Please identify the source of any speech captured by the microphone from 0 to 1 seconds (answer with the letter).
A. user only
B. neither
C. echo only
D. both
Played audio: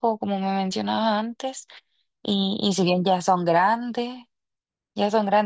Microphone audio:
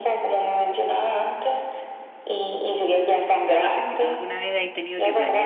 C